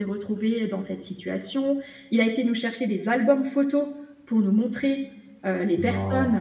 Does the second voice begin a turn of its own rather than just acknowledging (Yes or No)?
No